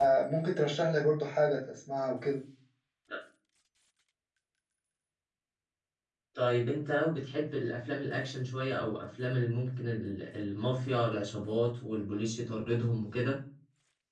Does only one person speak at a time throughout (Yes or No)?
Yes